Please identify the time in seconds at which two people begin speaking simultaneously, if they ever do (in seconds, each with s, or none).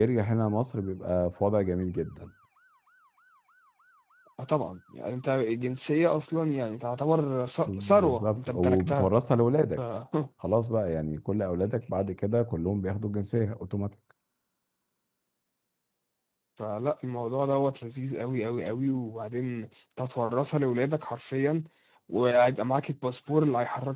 7.7 s